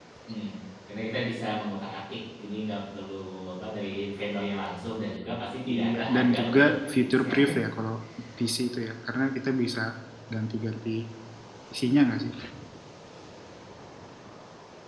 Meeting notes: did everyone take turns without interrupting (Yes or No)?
No